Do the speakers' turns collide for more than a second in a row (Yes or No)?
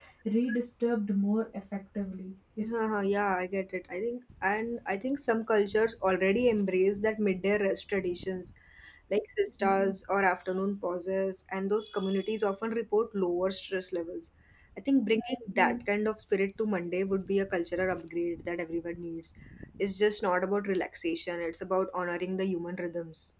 No